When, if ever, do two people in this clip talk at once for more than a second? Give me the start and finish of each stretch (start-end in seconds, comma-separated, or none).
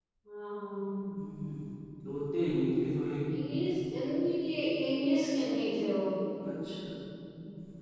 none